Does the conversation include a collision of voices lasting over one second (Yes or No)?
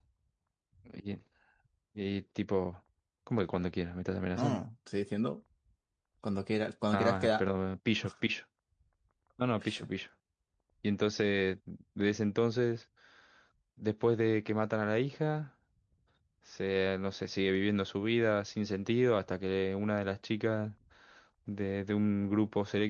No